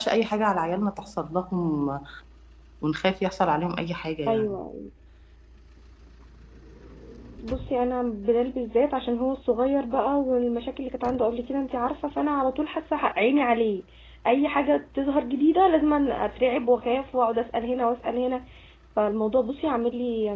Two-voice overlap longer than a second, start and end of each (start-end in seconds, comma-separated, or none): none